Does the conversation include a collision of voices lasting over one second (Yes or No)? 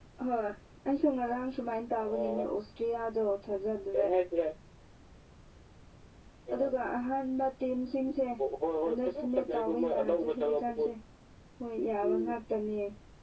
Yes